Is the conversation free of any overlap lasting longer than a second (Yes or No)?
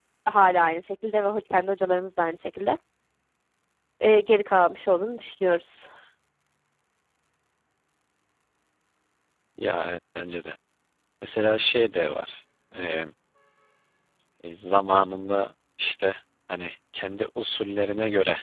Yes